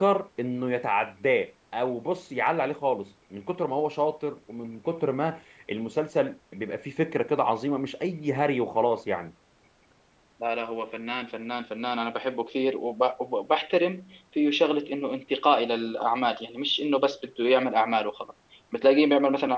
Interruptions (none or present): none